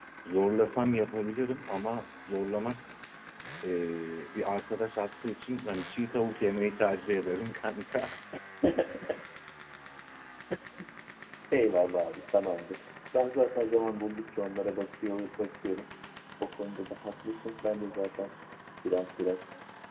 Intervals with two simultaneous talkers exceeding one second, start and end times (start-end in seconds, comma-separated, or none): none